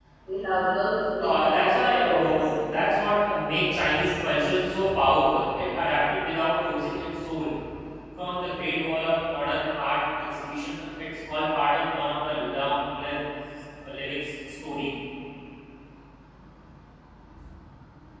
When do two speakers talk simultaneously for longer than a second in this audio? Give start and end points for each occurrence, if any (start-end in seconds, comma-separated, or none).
1.2-2.5